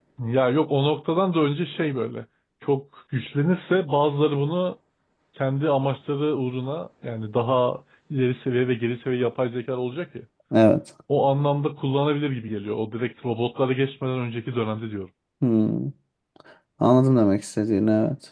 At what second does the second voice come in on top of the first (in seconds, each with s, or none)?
none